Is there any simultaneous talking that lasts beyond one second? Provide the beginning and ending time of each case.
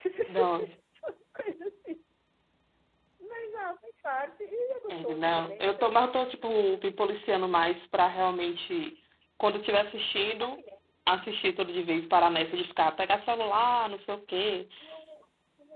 4.9-7.0

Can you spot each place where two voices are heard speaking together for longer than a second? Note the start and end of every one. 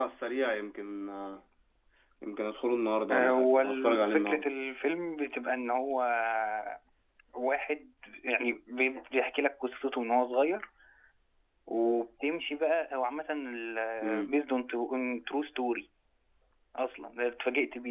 3.1-4.4

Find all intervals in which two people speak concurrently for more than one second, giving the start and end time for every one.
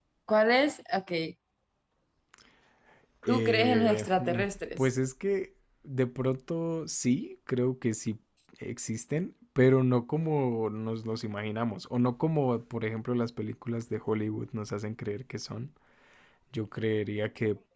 3.3-4.9

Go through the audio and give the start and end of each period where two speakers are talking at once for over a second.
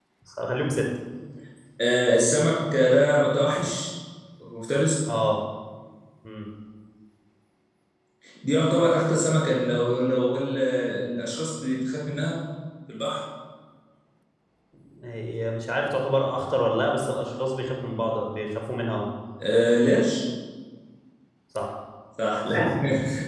none

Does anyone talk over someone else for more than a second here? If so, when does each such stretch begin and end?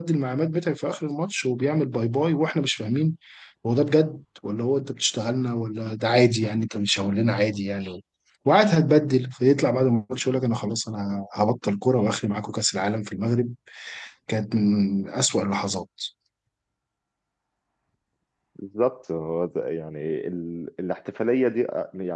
none

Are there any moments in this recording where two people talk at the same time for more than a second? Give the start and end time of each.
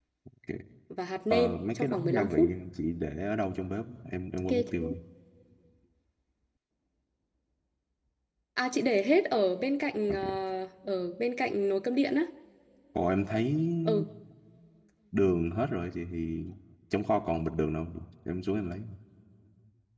1.3-2.5

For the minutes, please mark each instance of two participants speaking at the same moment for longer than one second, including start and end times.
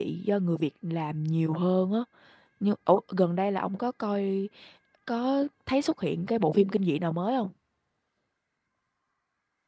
none

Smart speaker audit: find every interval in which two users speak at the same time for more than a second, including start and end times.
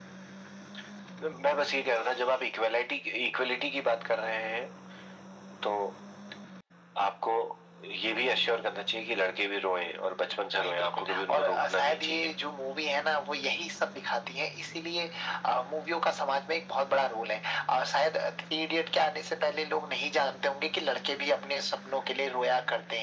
10.6-12.3

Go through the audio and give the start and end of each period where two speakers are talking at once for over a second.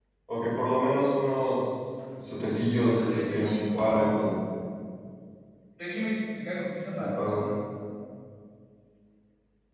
2.9-4.1

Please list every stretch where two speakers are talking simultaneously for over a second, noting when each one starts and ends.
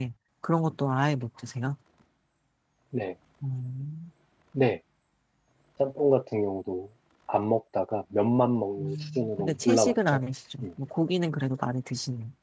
8.8-10.2

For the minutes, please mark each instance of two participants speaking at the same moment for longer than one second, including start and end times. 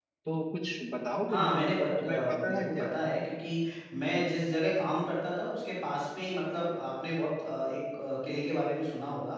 1.3-2.9

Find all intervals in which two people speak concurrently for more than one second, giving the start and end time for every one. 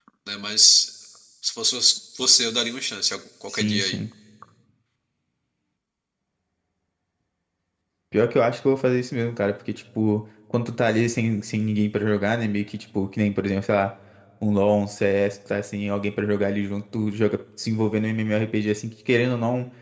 none

